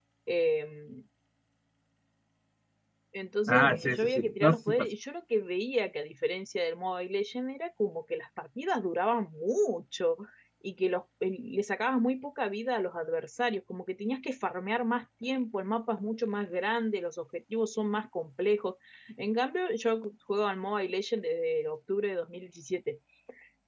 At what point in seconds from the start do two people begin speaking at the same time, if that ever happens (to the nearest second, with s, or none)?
3 s